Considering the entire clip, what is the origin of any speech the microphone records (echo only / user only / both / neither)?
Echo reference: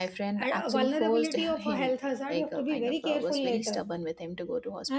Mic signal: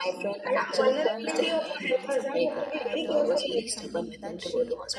both